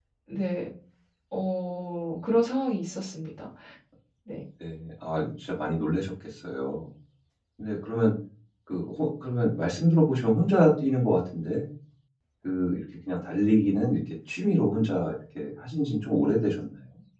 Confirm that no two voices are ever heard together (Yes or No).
Yes